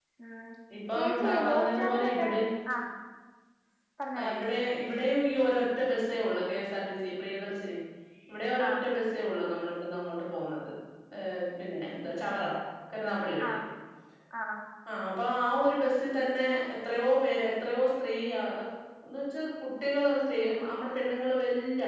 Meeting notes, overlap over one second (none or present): present